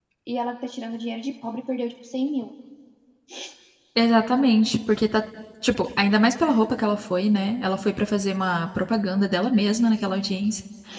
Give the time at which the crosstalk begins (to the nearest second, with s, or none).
none